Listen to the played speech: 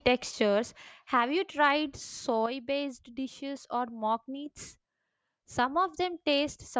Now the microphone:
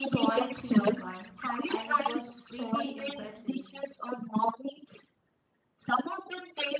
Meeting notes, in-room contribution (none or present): present